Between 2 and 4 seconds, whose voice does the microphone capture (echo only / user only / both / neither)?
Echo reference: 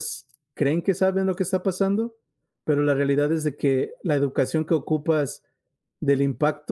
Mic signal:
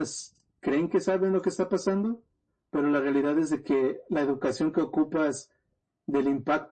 echo only